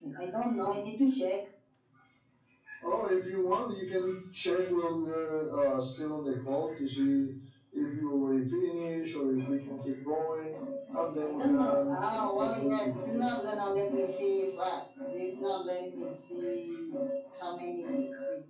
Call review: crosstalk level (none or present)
present